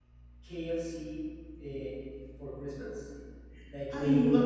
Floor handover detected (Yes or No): No